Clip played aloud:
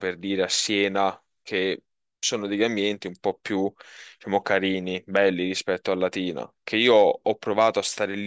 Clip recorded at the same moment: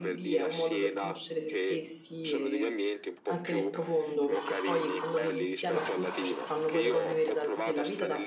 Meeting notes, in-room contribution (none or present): present